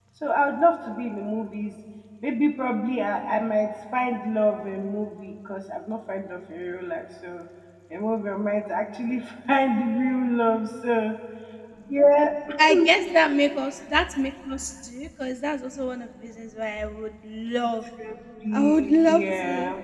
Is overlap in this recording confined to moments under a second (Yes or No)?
No